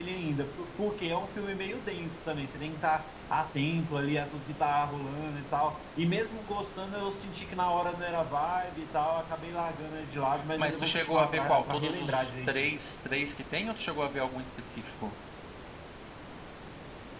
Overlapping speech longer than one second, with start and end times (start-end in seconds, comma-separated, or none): 10.6-12.7